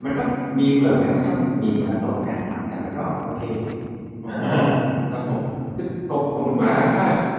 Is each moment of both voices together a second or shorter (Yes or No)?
Yes